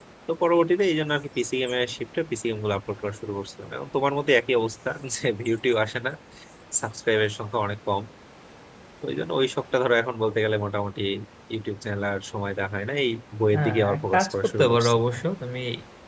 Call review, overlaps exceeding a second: present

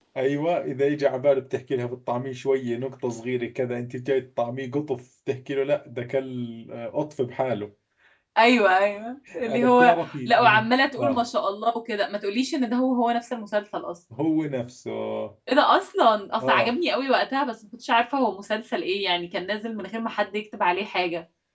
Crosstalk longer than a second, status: present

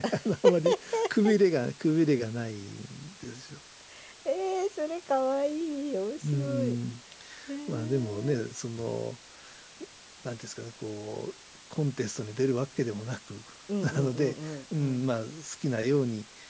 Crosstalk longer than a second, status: present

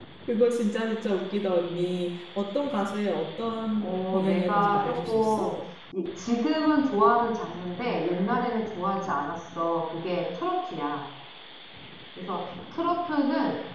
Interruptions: present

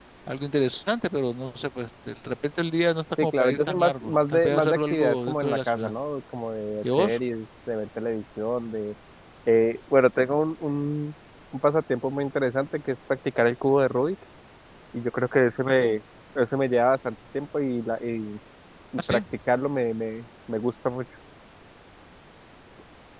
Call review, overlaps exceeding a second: present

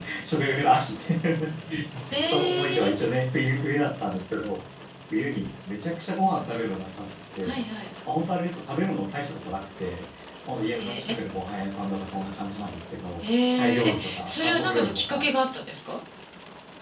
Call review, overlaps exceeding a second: present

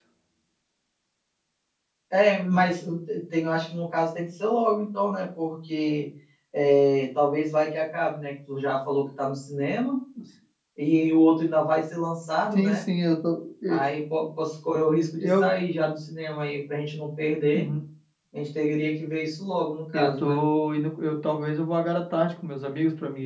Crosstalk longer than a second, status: none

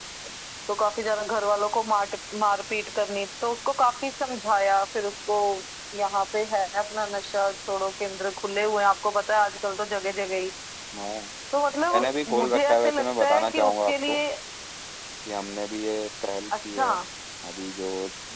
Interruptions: present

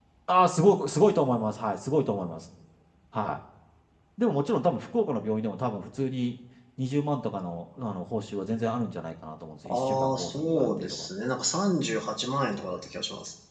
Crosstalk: present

